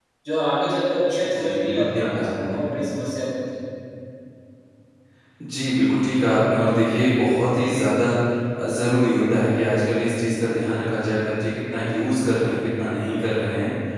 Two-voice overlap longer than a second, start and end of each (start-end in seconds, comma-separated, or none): 1.2-2.6